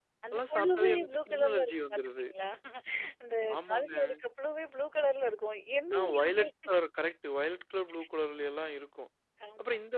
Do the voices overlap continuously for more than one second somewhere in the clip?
Yes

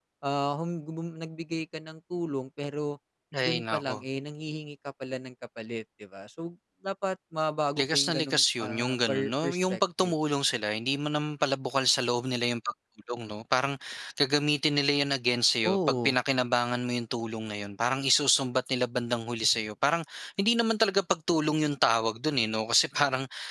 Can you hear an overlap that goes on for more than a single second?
Yes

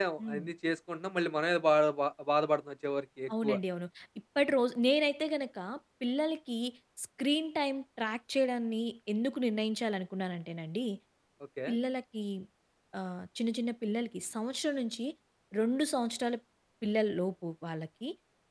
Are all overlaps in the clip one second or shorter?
Yes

